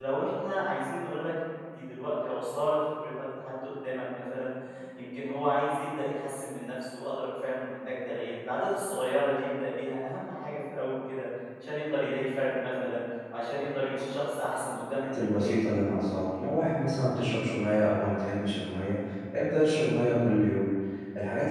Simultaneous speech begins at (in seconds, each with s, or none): 13.6 s